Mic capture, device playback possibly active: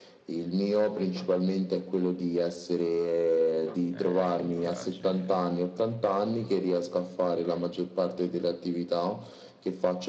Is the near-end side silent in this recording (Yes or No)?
No